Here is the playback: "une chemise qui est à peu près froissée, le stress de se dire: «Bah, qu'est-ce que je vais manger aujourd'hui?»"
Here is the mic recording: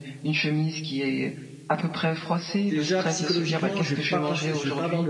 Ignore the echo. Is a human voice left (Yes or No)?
Yes